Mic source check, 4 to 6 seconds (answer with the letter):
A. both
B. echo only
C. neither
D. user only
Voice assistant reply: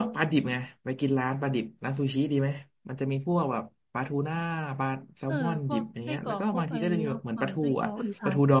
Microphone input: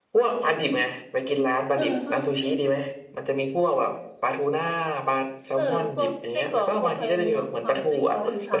B